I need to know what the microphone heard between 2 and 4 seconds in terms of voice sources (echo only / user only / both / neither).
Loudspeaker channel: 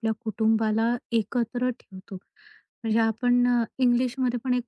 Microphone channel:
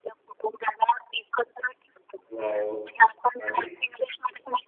both